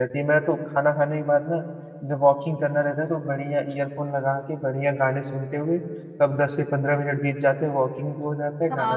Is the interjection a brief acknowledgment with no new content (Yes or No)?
No